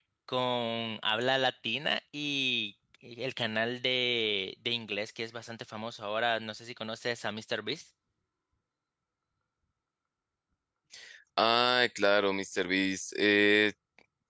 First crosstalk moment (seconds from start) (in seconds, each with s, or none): none